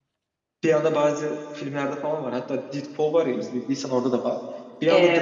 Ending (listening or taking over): listening